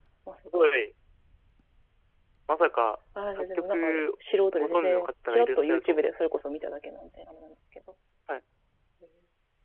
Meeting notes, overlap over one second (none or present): present